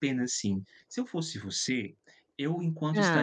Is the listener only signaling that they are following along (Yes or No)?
Yes